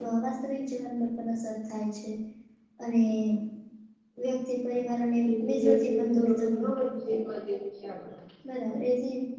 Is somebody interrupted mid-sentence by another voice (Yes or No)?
Yes